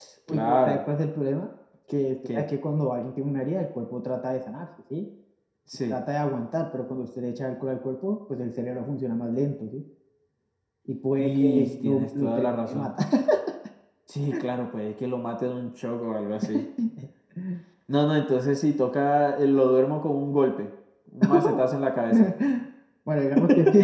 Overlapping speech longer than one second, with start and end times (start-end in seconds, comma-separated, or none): 11.2-12.9